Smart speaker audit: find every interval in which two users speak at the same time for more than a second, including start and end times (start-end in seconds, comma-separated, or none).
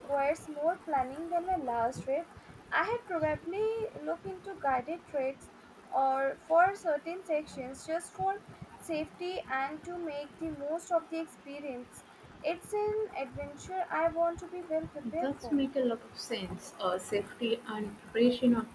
none